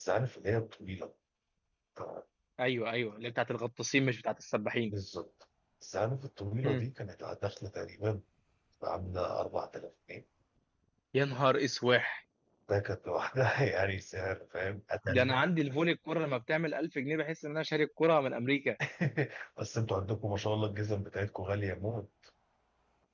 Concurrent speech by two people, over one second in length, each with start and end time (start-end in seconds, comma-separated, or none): none